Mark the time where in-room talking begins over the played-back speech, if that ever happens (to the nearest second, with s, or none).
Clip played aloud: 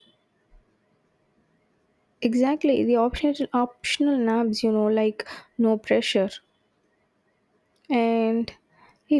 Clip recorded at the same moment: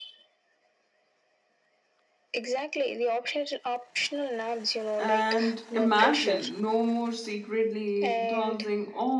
5 s